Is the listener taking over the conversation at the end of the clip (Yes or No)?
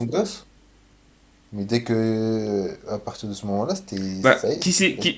Yes